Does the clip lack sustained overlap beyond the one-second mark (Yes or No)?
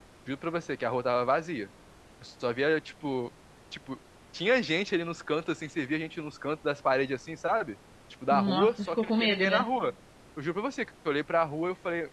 No